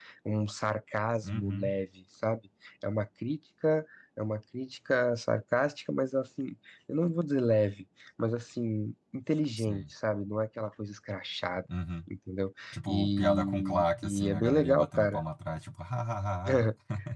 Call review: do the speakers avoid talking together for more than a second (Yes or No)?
No